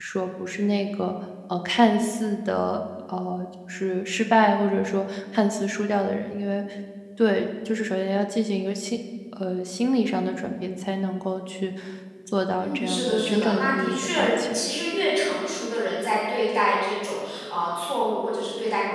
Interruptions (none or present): present